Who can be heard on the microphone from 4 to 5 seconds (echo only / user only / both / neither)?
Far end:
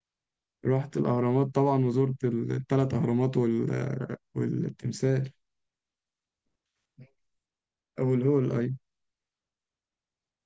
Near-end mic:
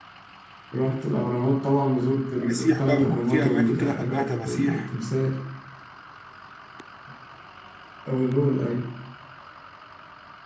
both